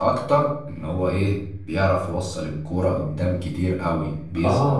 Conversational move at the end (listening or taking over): taking over